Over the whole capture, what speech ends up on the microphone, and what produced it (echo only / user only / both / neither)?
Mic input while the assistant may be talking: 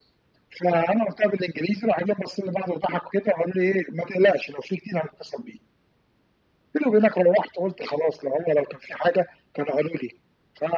echo only